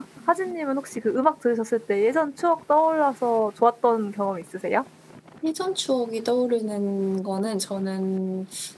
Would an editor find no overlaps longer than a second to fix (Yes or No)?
Yes